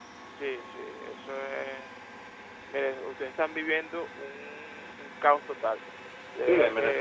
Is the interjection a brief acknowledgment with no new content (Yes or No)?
No